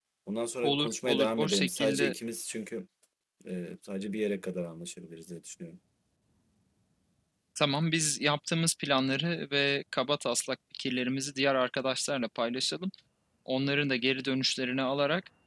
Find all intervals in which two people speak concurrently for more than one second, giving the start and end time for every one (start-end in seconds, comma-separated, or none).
0.6-2.1